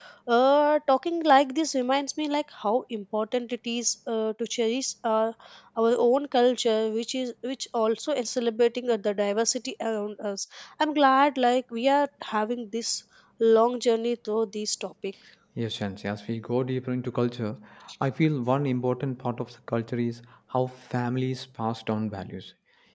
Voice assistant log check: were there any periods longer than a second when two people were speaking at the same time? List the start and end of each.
none

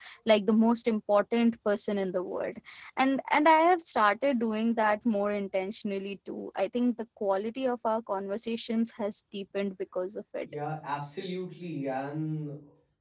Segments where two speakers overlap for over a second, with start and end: none

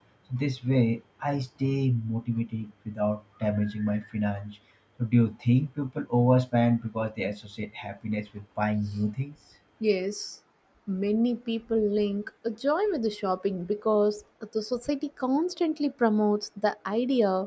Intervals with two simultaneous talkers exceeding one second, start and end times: none

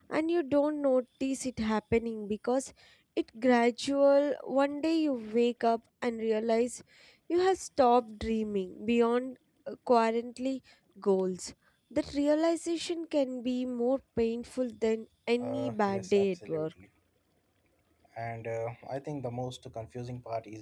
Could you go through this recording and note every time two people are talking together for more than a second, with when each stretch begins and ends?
15.4-16.7

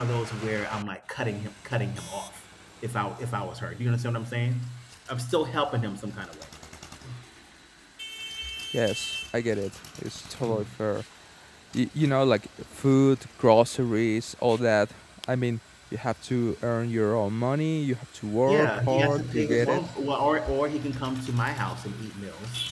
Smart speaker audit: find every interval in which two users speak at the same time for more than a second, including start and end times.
18.5-19.8

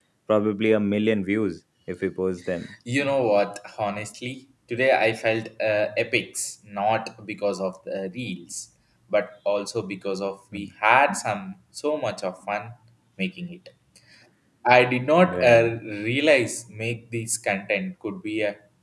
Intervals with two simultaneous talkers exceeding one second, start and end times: none

